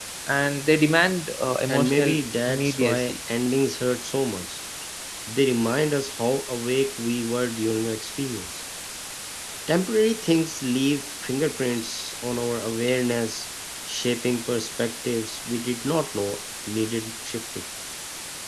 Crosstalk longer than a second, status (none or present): present